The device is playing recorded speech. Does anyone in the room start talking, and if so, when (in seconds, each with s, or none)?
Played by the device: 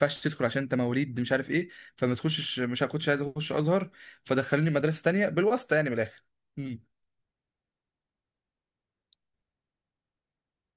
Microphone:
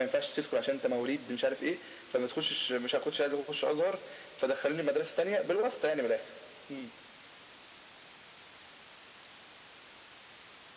none